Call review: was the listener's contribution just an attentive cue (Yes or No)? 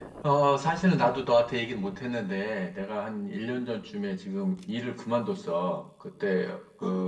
Yes